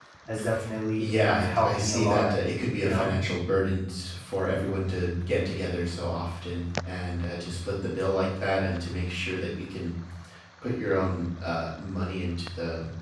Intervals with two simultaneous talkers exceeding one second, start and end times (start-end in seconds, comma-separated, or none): 1.0-2.3